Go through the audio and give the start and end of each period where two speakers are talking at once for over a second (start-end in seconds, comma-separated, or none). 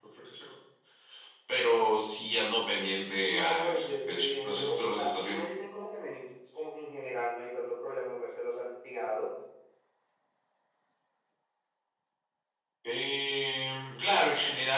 3.2-5.5